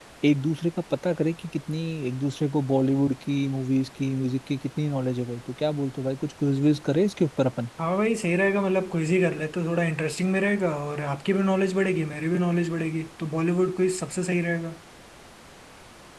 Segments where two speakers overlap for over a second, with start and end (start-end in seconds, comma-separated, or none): none